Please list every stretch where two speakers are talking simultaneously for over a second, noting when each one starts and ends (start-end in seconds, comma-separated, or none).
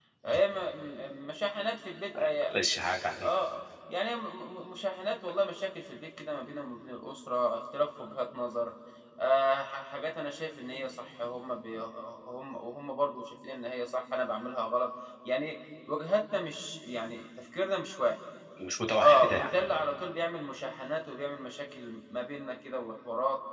none